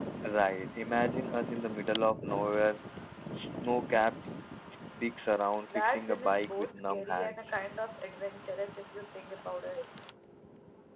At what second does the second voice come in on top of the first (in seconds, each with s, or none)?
5.7 s